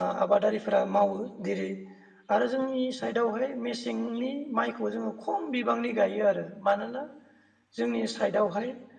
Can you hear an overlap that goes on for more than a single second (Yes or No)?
No